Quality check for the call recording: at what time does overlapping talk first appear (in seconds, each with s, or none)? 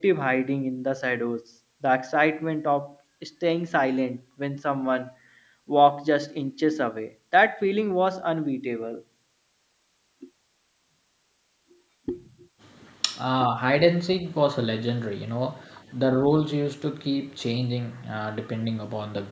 none